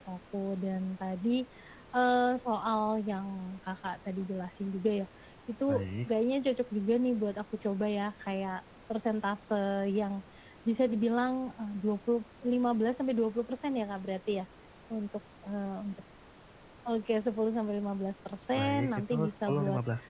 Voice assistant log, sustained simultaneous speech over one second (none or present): present